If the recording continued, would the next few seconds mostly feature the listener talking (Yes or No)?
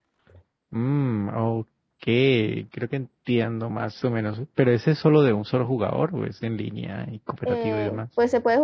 Yes